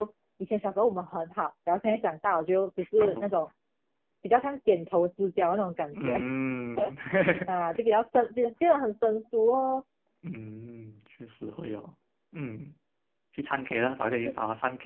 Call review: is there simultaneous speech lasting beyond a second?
No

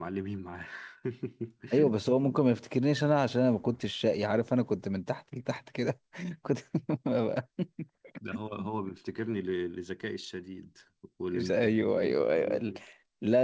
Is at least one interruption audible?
Yes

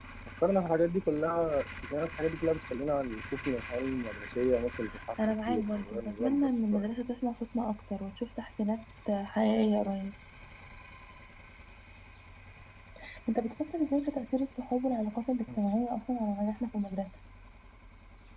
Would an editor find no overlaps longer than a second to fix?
No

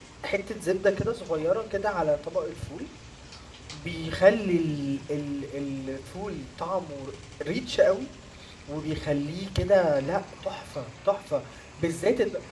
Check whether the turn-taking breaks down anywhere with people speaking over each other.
No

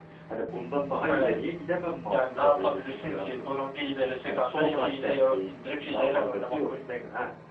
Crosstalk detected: Yes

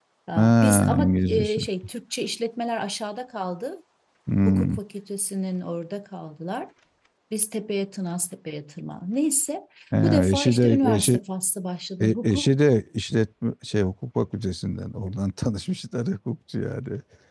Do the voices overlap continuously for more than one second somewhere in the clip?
Yes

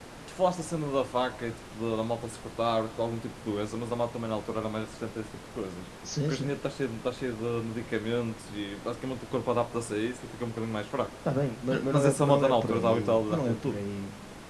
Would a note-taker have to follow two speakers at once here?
Yes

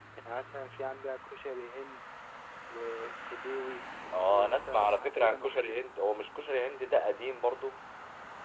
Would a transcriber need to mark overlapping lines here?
Yes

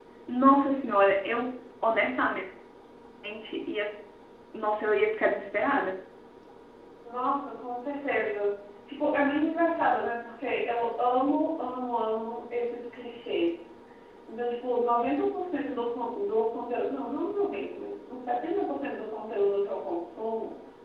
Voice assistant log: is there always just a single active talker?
Yes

